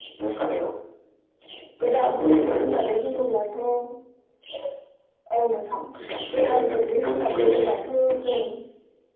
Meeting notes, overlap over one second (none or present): present